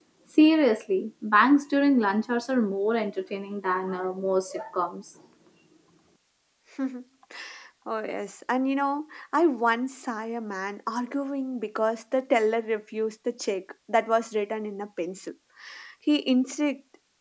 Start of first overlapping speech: none

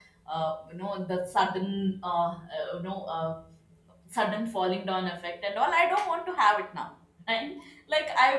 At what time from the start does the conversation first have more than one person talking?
none

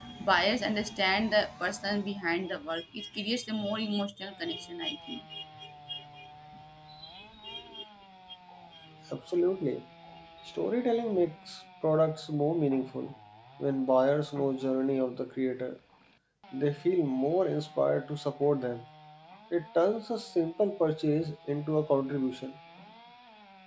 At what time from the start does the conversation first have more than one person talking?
none

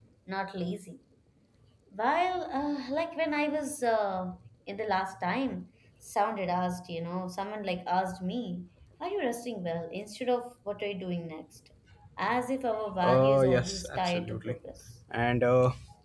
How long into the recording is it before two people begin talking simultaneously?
13 s

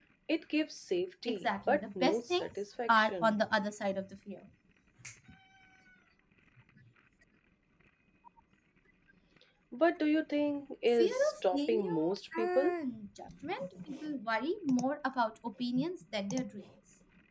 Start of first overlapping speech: 1 s

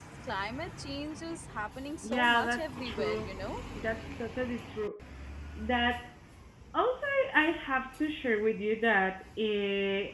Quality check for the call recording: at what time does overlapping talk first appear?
2 s

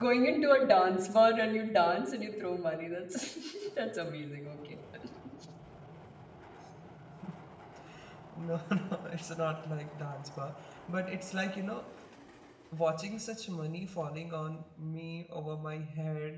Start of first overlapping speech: none

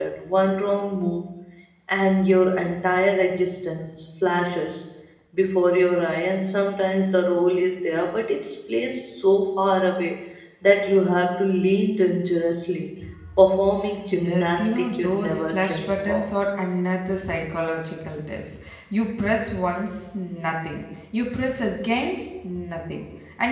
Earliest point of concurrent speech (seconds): 14 s

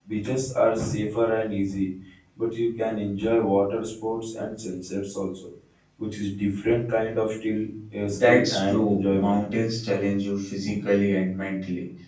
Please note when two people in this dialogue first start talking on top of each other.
8 s

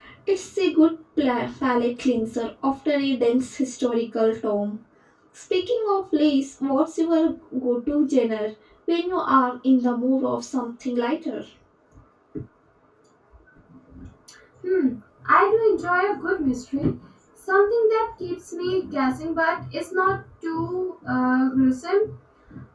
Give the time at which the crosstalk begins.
none

